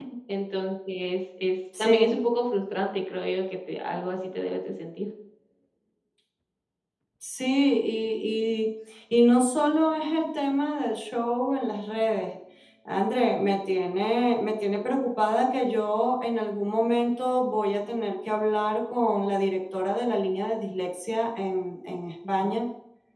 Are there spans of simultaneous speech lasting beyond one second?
No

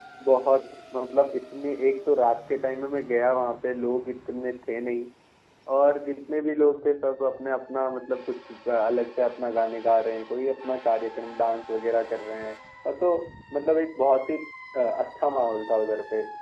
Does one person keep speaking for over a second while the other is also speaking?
No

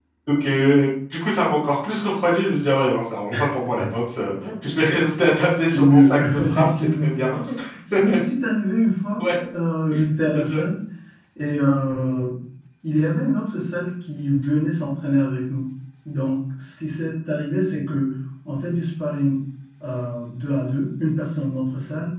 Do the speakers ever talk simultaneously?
Yes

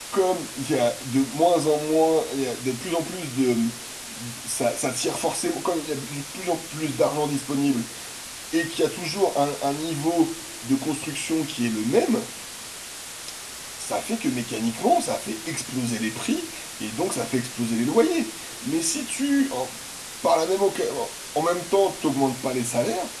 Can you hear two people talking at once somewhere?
No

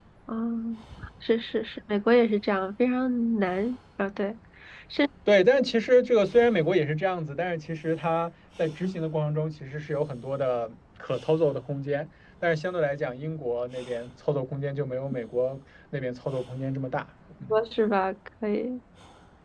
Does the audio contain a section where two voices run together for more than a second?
No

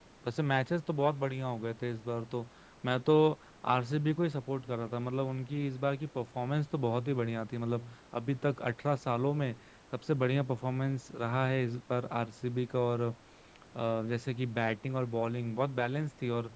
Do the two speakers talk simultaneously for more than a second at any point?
No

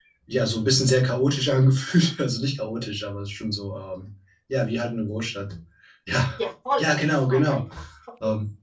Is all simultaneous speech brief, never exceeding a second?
Yes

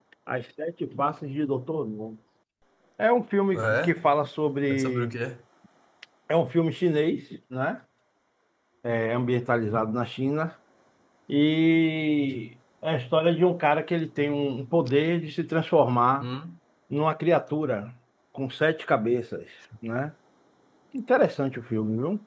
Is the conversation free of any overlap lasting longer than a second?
Yes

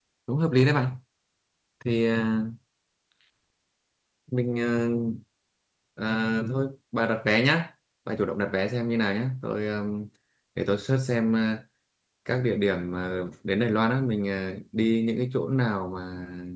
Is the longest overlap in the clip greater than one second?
No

